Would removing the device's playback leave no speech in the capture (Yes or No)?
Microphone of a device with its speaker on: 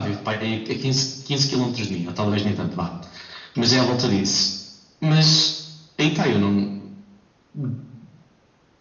Yes